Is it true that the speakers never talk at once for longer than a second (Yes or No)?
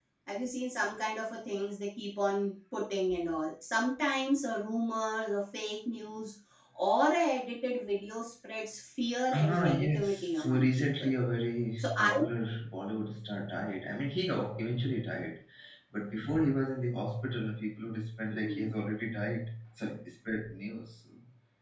No